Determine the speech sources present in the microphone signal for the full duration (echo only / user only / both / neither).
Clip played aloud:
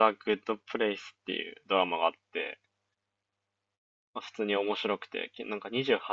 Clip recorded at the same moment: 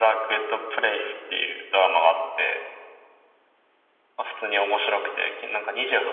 echo only